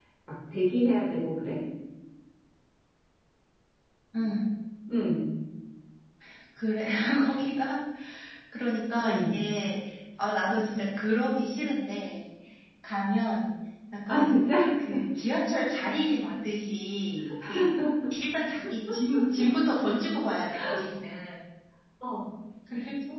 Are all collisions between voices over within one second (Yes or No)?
Yes